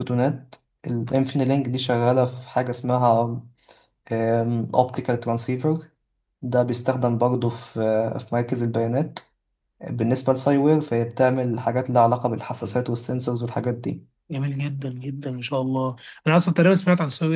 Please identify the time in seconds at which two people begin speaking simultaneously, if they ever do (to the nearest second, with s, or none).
none